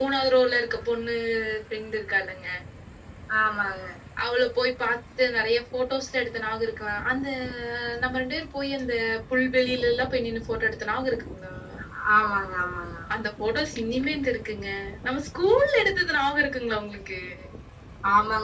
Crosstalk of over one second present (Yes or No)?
No